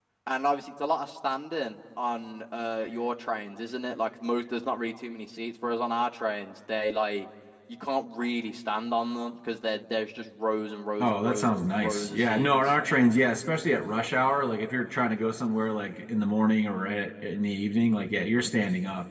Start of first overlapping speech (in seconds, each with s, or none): 11.0 s